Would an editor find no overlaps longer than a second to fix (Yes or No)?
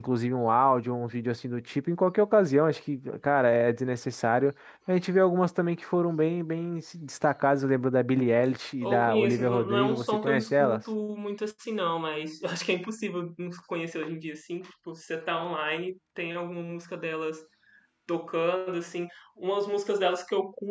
No